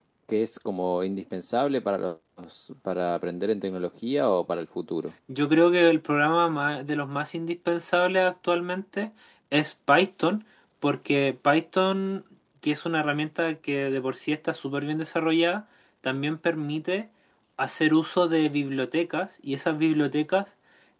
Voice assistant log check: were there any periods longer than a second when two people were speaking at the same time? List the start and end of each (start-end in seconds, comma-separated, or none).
none